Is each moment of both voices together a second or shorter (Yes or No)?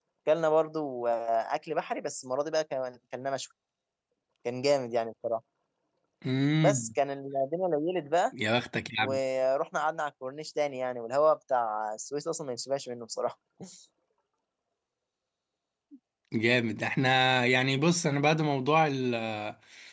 Yes